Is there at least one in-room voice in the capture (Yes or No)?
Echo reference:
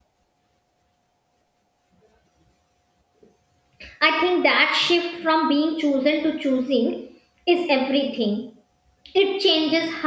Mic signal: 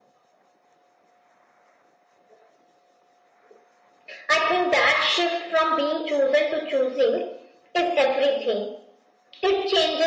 No